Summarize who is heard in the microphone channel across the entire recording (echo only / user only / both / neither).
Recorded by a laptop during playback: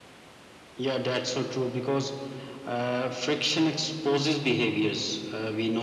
echo only